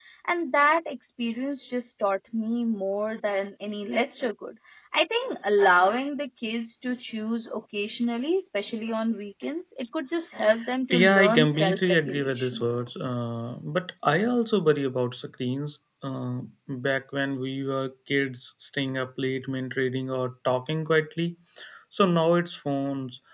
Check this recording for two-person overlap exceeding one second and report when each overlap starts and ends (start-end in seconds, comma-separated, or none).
10.9-12.6